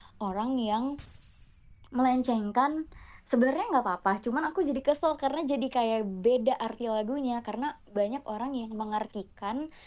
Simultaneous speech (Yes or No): No